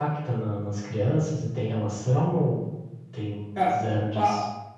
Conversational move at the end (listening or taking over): taking over